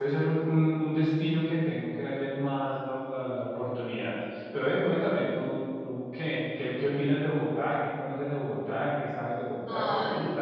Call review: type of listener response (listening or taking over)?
taking over